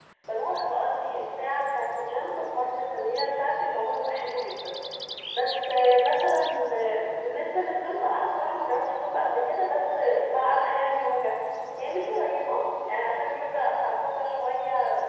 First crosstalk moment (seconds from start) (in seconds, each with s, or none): none